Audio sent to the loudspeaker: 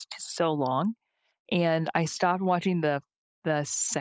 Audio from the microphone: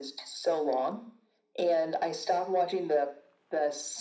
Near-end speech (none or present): none